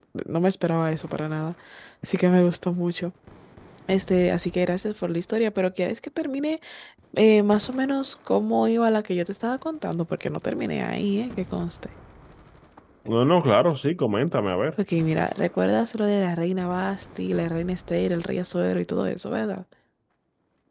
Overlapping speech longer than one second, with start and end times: none

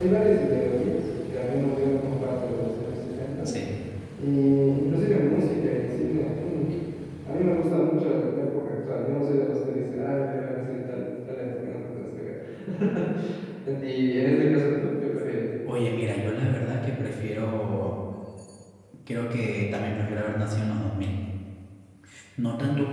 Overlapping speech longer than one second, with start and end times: none

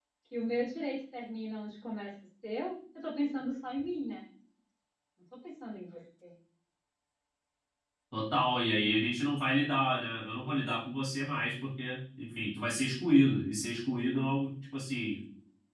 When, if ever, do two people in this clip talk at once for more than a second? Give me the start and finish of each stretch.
none

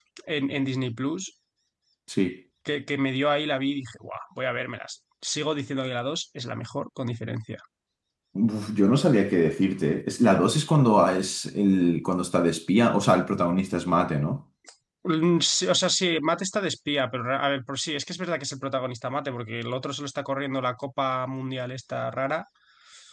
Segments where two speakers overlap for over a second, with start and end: none

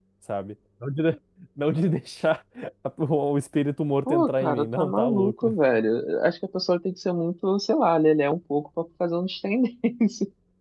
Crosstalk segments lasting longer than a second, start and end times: 4.1-5.5

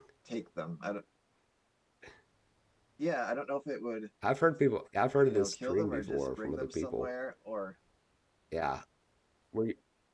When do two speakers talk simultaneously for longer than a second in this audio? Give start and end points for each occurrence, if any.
5.2-7.1

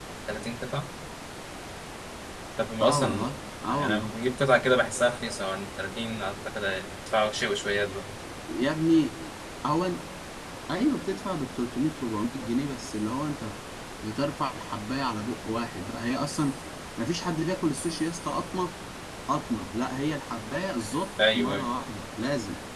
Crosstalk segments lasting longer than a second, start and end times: none

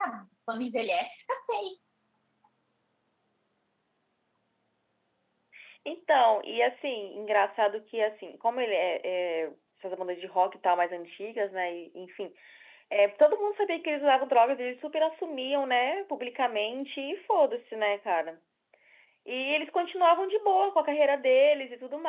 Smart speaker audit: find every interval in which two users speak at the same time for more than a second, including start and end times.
none

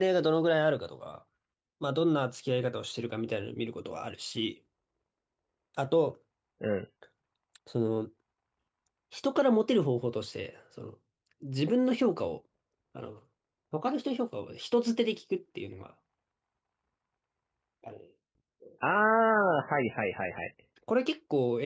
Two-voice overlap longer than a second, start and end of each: none

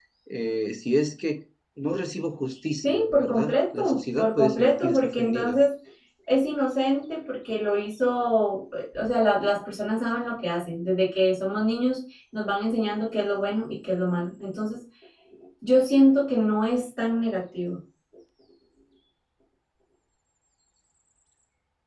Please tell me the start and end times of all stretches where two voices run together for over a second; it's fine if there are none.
2.8-5.6

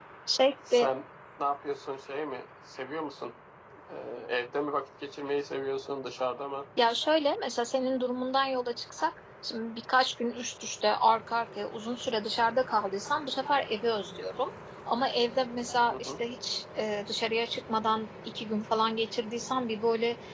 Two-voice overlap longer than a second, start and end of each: none

